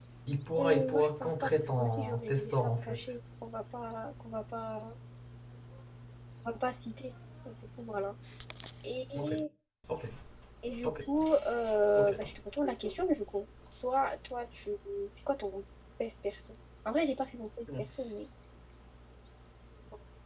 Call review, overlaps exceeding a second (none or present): present